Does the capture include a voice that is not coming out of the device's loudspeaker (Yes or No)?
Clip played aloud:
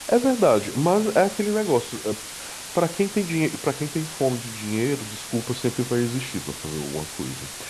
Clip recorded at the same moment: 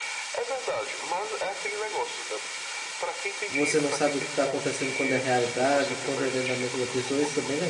Yes